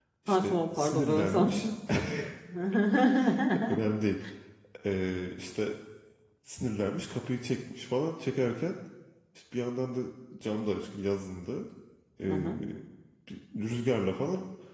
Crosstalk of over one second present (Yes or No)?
Yes